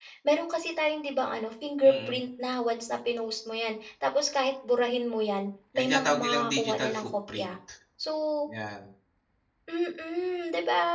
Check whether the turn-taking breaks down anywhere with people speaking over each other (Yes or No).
Yes